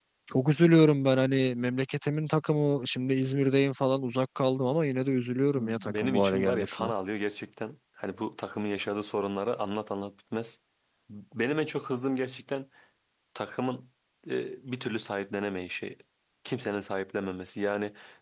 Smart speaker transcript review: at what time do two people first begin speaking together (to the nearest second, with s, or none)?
5 s